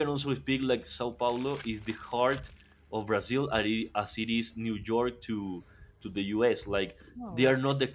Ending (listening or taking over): listening